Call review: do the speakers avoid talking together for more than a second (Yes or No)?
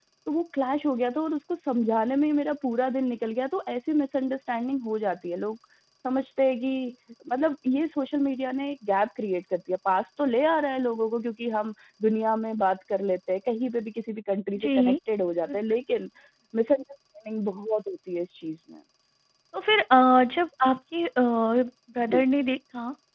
Yes